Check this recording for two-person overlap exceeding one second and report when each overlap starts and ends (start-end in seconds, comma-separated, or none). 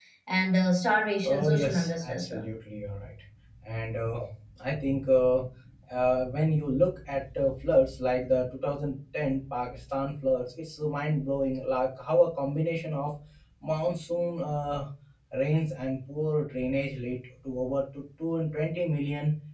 1.2-2.4